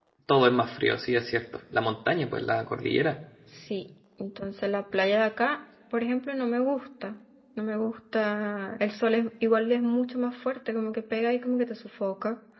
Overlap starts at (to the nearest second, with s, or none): none